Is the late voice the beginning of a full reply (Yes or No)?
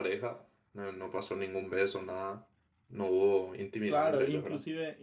Yes